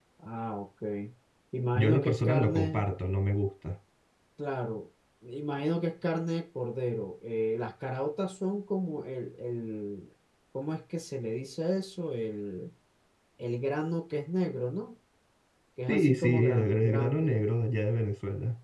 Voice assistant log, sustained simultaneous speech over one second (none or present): present